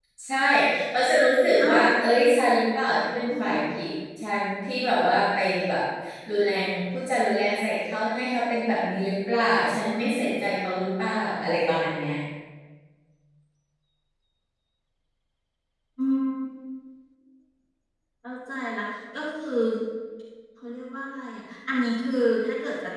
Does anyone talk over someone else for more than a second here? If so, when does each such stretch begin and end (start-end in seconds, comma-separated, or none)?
none